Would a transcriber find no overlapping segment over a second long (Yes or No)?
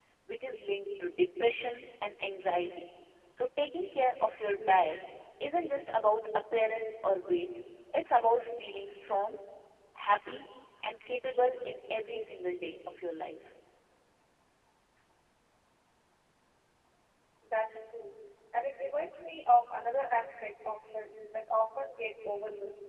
Yes